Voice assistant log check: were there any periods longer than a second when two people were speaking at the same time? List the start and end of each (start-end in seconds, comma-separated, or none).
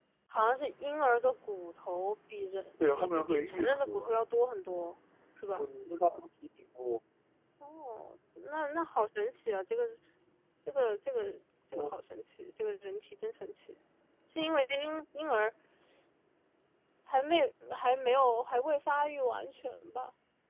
2.9-4.1